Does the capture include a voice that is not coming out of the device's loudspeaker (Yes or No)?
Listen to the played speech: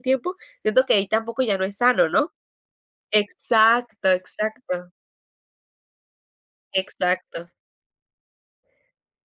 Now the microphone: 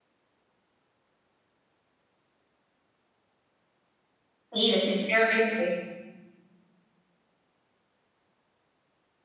Yes